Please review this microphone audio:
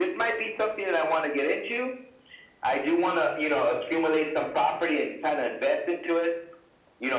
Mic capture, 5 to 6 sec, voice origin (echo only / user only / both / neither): echo only